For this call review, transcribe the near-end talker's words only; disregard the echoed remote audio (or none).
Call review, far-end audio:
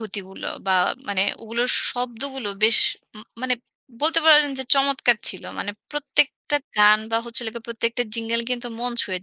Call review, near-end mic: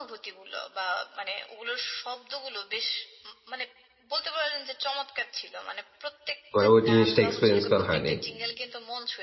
মানে ওই জিনিসটা এক্সপেরিয়েন্স করা হয়নি।